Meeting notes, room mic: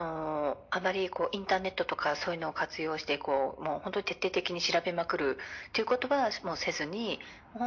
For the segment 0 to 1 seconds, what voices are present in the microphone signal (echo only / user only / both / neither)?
echo only